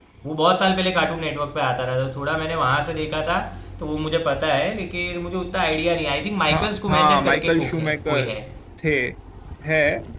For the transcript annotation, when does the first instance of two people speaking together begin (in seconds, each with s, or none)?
6.5 s